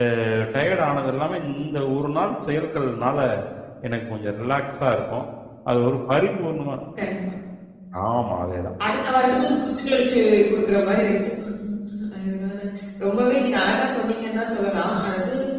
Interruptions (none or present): none